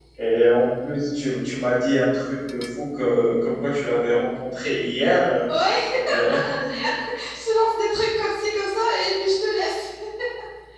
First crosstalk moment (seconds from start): none

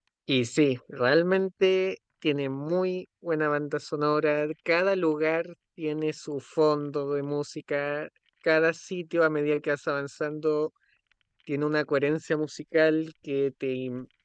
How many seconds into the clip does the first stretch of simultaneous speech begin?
none

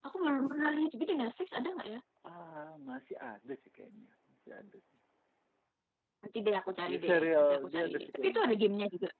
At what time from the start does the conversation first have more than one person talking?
6.9 s

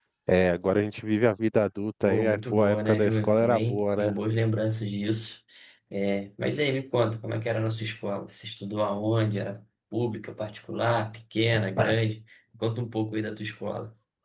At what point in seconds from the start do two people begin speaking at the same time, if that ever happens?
2.0 s

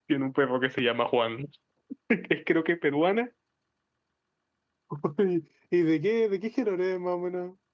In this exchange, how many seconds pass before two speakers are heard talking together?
none

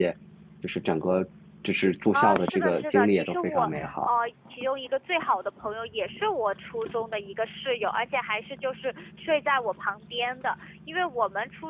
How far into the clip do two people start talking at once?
2.1 s

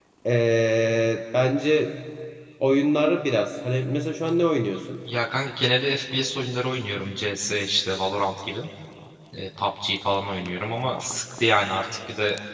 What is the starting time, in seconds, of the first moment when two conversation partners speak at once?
none

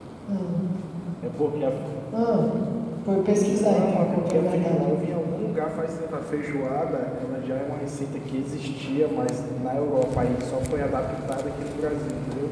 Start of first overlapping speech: 3.6 s

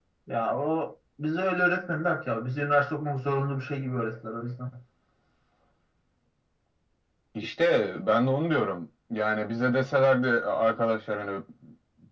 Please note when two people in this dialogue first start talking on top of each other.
none

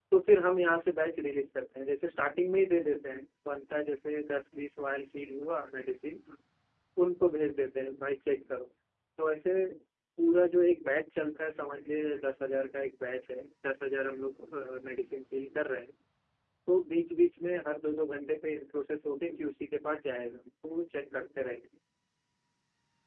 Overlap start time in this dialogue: none

